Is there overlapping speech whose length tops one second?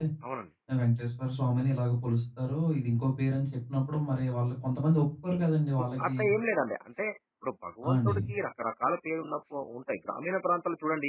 No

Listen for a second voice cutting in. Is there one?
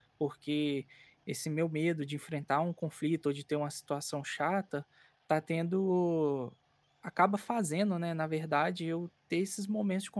No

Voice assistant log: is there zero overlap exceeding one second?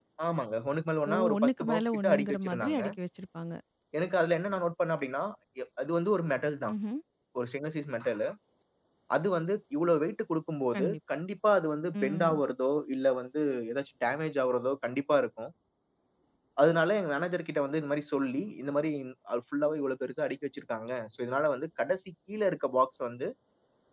No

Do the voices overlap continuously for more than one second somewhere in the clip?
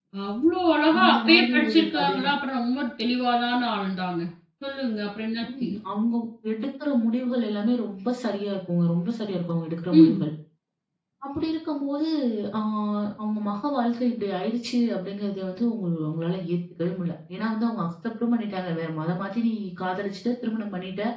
Yes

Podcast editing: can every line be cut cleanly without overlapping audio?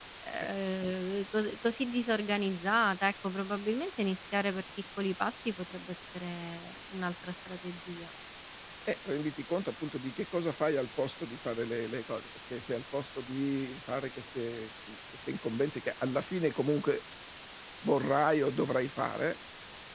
Yes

